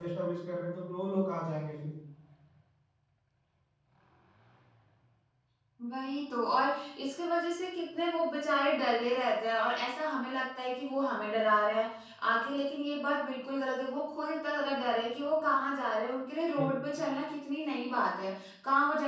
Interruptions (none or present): none